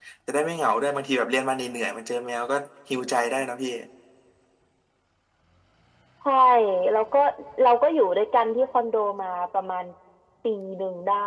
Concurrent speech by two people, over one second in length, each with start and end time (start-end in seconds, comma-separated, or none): none